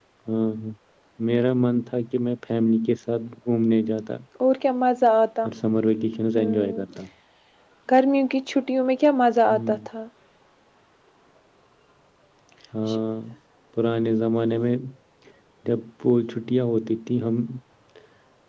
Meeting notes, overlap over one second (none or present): none